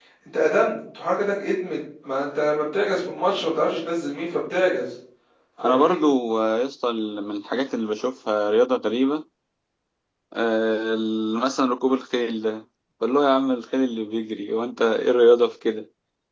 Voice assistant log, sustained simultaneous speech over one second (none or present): none